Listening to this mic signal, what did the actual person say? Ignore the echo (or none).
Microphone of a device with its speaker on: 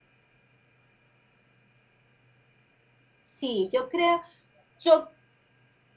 Sí, yo creo, yo